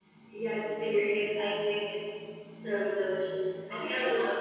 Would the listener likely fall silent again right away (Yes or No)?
No